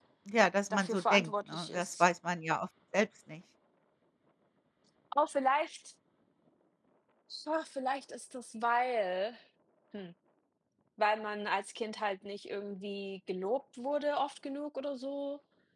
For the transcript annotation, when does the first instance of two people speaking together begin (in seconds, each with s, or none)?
0.7 s